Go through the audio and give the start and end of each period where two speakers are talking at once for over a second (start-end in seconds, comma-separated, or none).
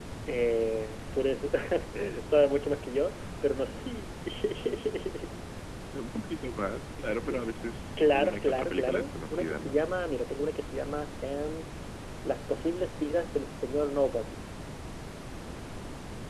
8.0-9.8